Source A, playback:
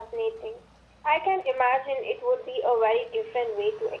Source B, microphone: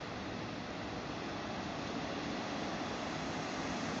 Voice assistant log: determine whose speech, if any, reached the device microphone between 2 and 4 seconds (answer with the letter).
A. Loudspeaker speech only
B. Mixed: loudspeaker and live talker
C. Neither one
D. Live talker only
C